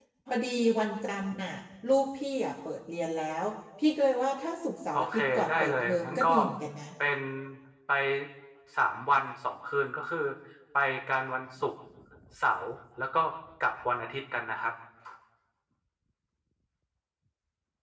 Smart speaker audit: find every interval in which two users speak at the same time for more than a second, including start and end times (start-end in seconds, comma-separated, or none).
4.9-6.3